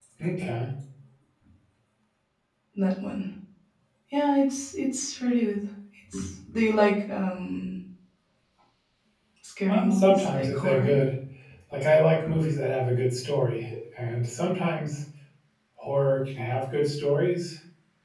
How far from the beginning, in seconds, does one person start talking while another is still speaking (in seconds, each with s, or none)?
9.7 s